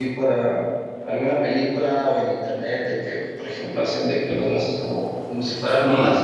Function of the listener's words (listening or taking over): taking over